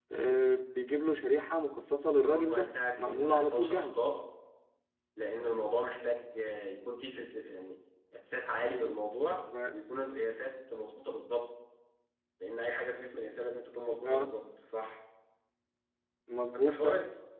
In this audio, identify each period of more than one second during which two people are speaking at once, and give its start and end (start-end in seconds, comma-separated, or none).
2.2-4.0